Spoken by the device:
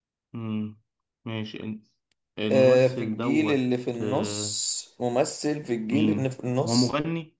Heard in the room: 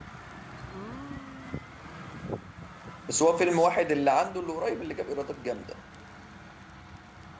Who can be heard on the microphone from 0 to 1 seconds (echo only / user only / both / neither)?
neither